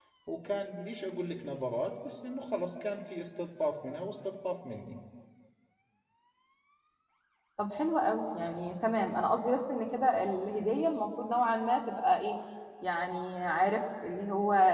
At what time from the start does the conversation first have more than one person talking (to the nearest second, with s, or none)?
none